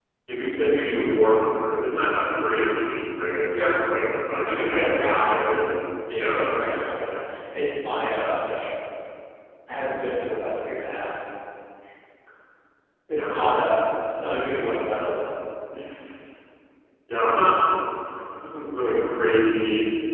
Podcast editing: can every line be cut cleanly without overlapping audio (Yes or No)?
No